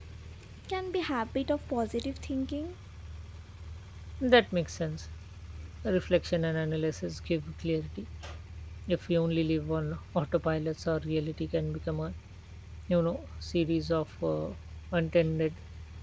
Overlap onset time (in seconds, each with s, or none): none